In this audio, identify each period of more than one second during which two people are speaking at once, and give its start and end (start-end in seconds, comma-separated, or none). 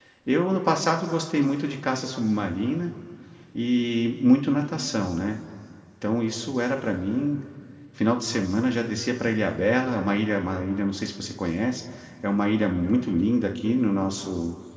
none